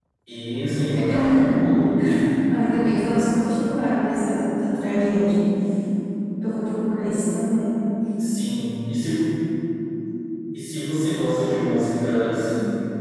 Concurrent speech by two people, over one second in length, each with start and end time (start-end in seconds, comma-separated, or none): none